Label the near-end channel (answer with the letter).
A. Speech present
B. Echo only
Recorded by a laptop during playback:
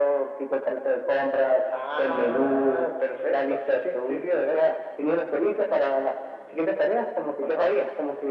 B